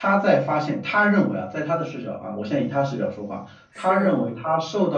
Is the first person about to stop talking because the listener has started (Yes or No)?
No